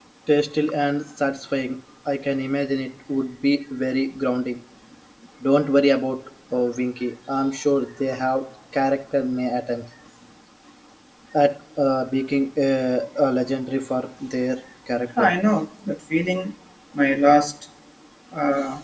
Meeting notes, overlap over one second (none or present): none